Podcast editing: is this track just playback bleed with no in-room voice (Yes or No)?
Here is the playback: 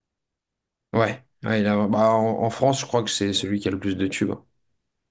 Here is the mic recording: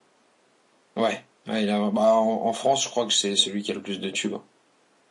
Yes